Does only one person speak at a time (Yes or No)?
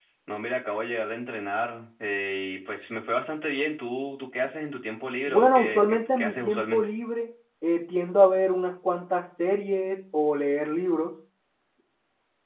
No